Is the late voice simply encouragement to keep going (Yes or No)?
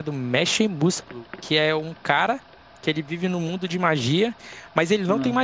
Yes